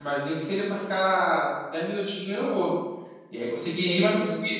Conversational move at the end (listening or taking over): listening